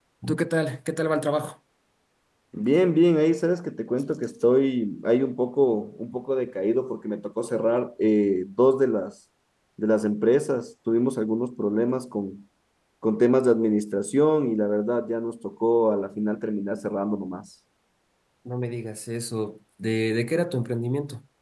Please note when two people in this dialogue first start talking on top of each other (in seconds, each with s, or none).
none